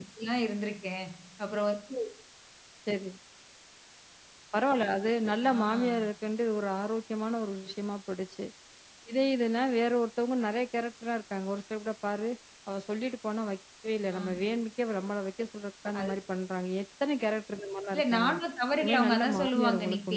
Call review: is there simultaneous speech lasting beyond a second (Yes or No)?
Yes